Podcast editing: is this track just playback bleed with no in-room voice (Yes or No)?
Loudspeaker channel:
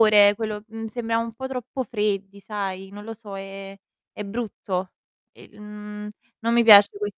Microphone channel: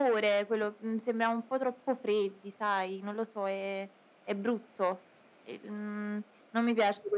Yes